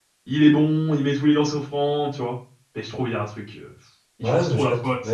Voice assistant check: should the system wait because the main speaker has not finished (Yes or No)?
No